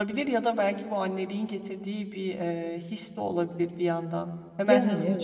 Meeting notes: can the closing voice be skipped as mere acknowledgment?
Yes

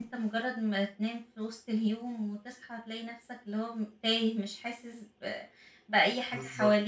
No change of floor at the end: No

